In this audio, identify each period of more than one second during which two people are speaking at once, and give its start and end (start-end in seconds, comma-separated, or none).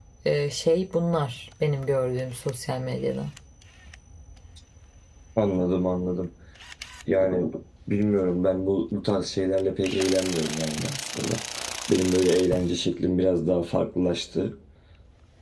none